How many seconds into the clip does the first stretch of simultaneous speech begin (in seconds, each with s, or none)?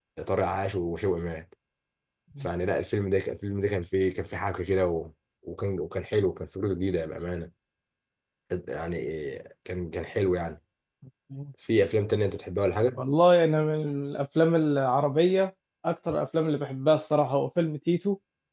none